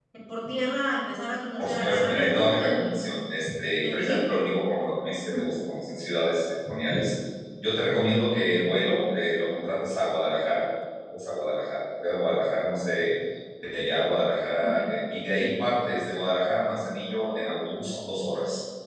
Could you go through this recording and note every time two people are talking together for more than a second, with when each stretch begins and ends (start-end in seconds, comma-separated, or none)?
1.6-2.9